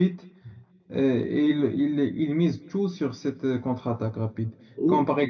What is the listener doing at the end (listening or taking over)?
listening